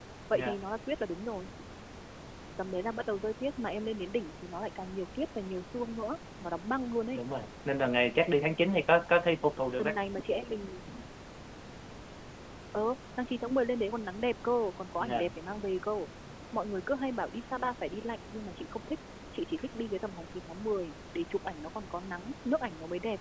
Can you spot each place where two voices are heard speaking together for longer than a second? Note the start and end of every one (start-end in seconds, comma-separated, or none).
none